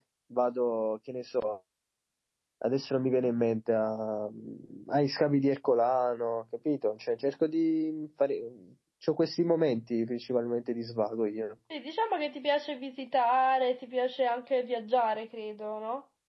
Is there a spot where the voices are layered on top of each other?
No

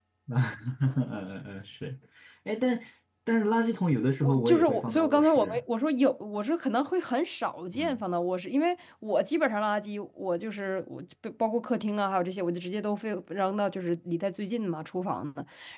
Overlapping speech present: Yes, from 4.2 s

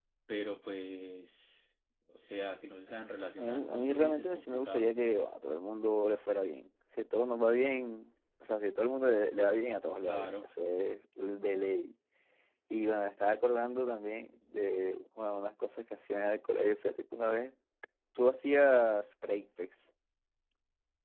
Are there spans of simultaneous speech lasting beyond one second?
Yes, from 3.4 s

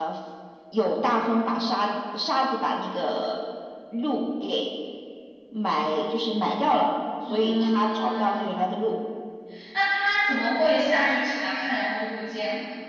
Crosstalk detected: Yes, from 7.3 s

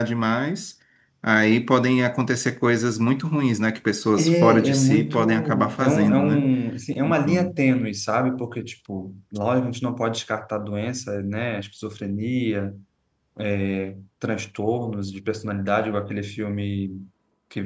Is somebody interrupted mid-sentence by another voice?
Yes, from 4.2 s

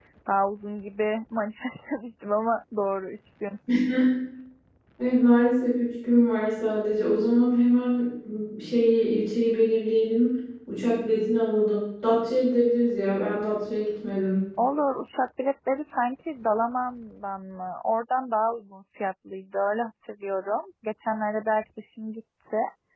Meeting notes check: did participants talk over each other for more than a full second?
No

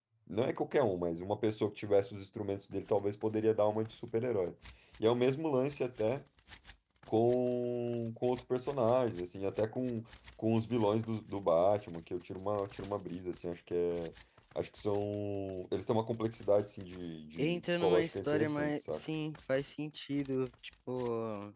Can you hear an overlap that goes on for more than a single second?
Yes, from 17.4 s

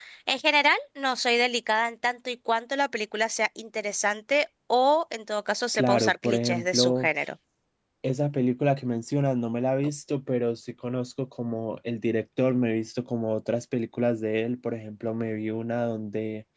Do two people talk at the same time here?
Yes, from 5.7 s

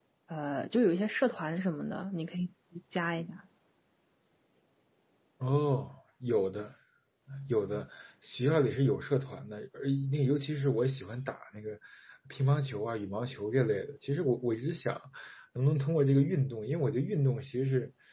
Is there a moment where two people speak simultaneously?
No

